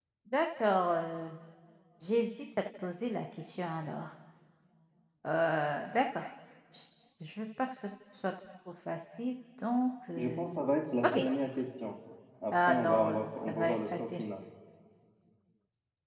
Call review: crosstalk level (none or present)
present